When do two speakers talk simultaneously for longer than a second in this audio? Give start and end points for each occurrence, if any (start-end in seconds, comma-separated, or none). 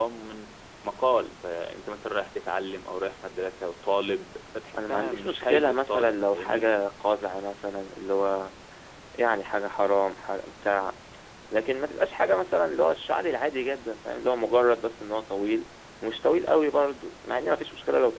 4.8-6.7